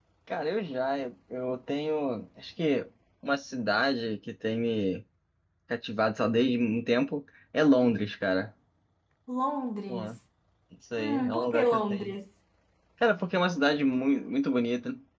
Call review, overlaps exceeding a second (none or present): present